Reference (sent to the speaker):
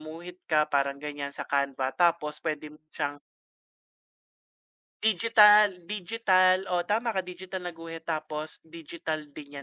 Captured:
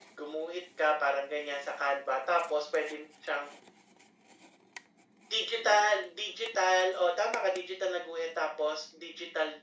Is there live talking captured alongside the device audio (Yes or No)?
No